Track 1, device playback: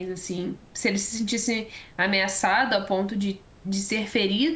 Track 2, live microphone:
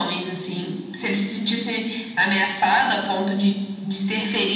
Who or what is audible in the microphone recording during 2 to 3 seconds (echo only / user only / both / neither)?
echo only